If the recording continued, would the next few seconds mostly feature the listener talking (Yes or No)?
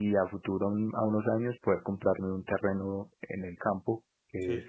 No